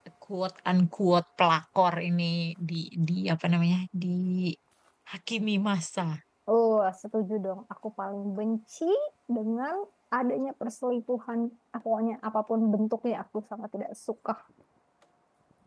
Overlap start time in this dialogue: none

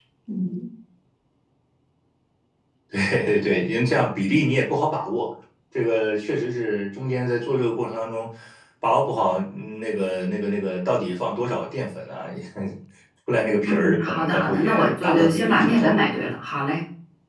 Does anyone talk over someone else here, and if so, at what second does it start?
13.7 s

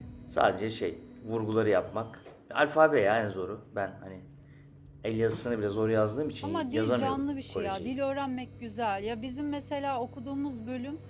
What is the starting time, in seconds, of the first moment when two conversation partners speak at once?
6.4 s

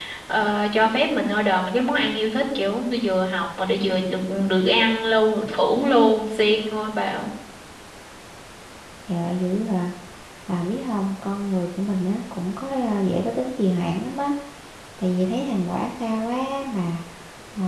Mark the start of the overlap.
none

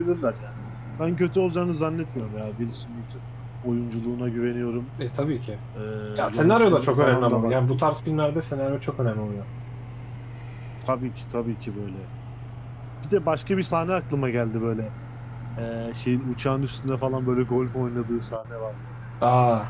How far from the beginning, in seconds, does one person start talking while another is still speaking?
6.3 s

